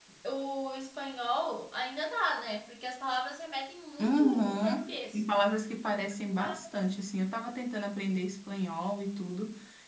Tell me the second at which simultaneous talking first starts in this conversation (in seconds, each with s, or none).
4.0 s